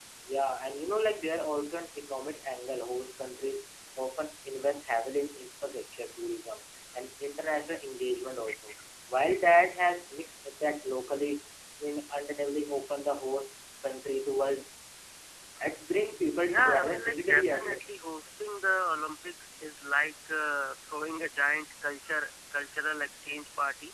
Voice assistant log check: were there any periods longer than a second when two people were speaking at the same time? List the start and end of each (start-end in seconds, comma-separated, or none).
16.4-17.8